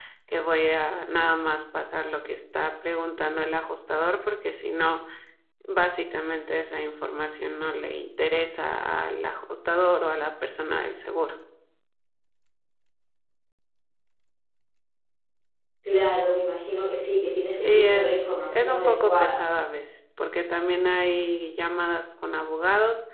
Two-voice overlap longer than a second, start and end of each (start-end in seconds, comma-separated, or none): 17.6-19.4